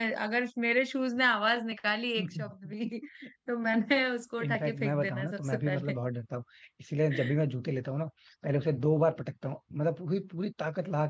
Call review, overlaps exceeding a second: present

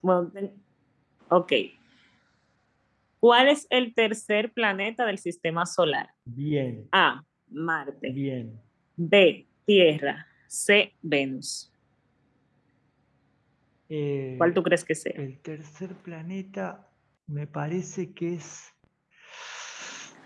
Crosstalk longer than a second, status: none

